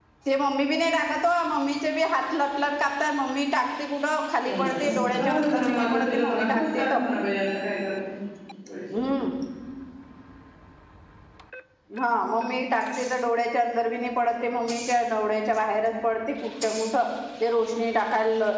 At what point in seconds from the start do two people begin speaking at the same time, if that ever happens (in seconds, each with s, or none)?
4.4 s